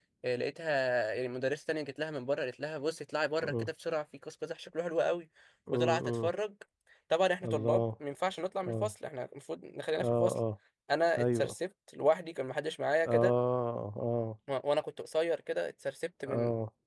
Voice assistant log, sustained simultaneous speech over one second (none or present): none